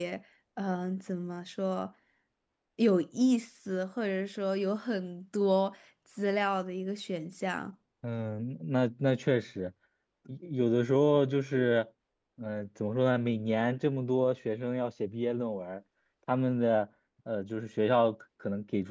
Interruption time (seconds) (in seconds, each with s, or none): none